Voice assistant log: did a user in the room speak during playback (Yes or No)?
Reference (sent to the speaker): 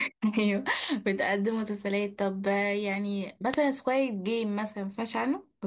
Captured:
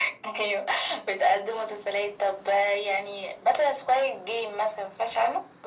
No